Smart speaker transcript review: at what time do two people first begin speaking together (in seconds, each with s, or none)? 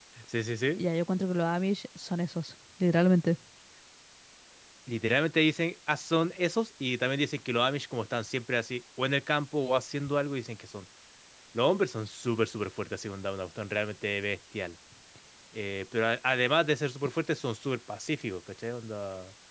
none